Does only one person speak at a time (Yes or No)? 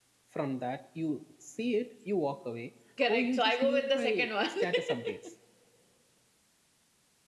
No